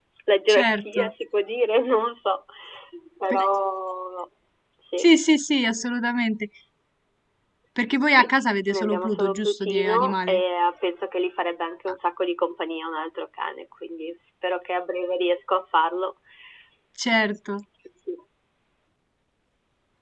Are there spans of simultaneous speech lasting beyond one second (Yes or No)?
Yes